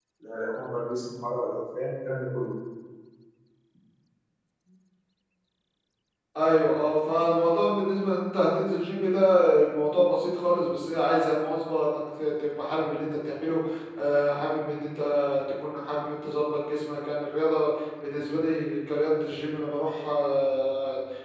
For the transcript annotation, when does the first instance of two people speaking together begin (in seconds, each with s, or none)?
none